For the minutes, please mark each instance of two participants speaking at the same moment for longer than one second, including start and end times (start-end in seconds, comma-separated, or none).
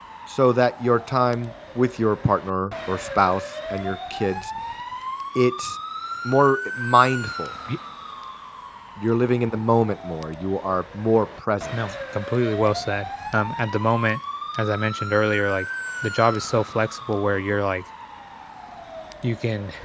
none